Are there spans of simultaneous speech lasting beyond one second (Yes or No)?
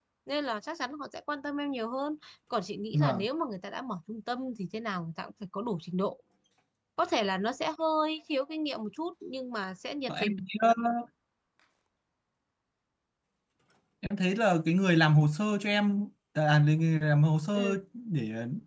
No